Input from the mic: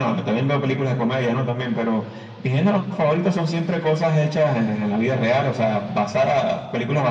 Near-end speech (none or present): none